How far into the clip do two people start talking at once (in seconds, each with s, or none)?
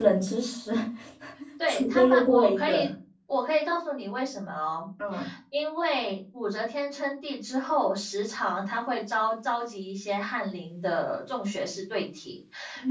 1.7 s